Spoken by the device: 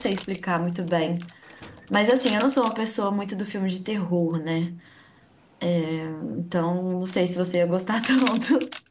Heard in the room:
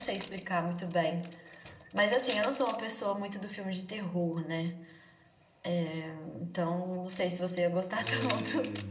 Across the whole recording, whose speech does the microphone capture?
both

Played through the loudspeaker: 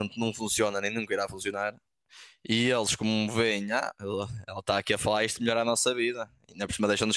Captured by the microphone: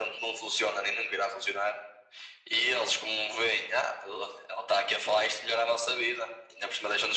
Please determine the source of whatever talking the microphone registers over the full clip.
echo only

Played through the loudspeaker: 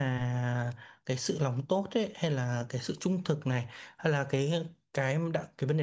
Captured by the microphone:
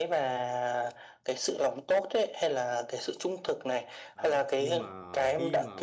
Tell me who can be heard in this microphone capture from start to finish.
both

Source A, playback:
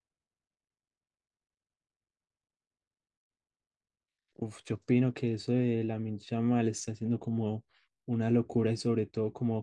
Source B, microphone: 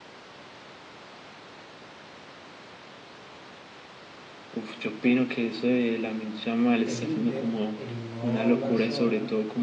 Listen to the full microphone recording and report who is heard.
both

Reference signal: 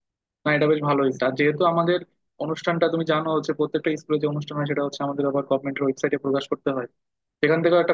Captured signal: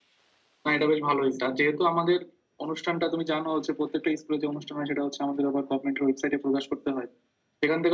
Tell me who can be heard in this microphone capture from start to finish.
echo only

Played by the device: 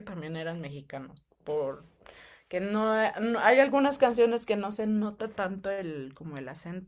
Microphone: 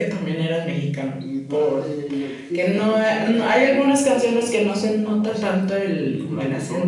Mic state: both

